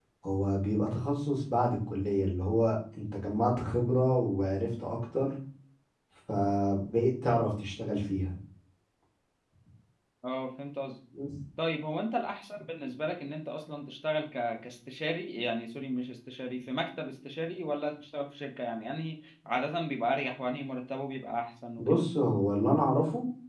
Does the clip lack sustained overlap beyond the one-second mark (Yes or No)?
Yes